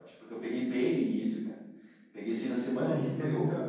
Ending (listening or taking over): taking over